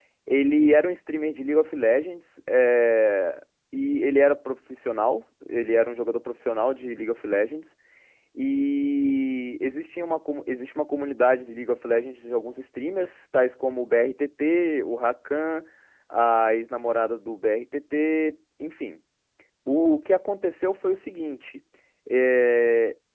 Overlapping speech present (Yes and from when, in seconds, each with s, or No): No